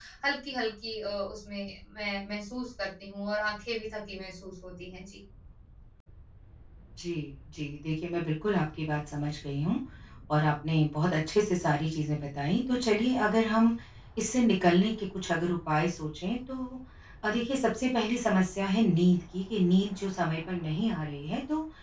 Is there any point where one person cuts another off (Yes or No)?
No